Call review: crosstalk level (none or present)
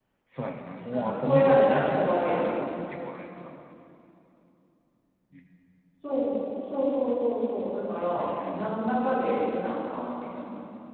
present